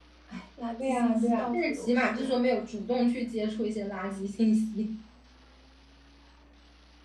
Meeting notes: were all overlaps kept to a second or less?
No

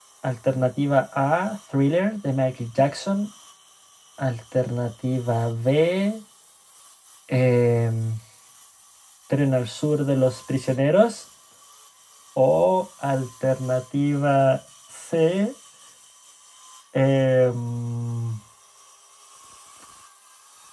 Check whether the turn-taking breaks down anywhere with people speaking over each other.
No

